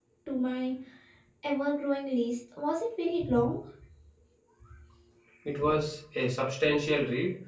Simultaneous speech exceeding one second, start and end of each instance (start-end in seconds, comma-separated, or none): none